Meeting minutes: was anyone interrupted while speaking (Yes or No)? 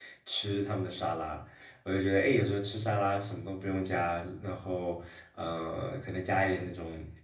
No